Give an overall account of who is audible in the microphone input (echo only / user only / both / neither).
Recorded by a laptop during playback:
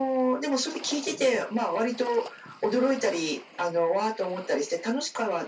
echo only